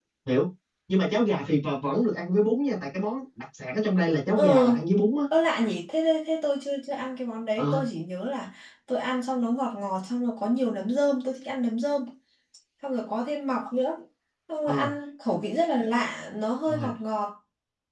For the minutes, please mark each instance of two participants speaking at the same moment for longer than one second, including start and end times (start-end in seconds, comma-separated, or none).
none